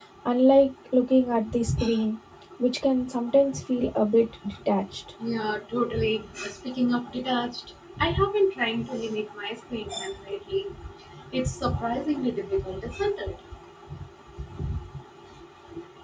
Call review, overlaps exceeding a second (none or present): none